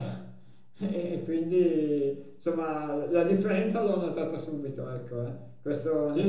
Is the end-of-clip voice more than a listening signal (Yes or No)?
No